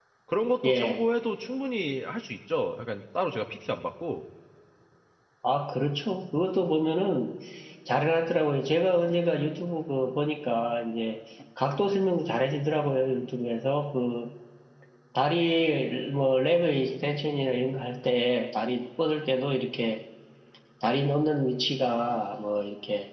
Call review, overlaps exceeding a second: none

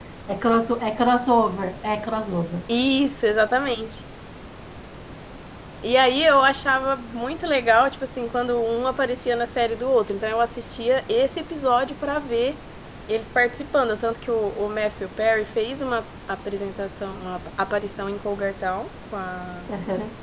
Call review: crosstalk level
none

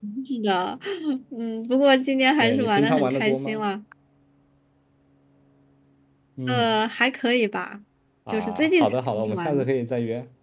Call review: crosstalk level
present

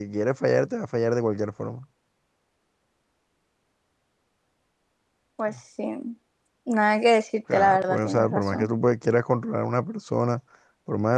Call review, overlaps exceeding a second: present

